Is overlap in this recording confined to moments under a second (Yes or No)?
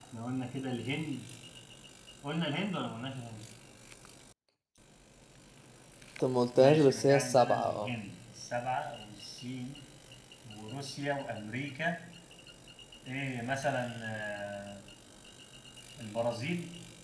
No